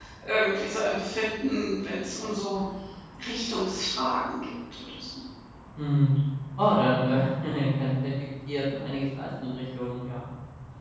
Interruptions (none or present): none